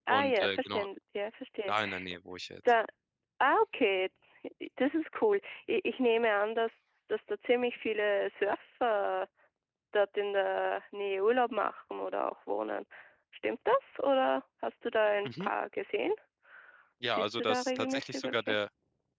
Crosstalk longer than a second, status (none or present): present